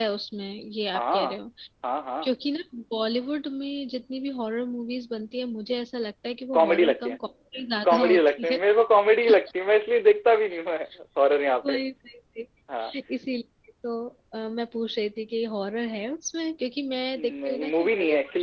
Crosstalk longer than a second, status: present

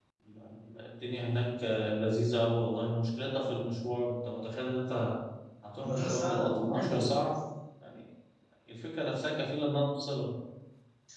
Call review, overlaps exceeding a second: present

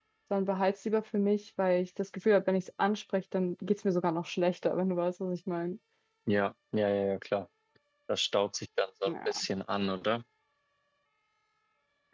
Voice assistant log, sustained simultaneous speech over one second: none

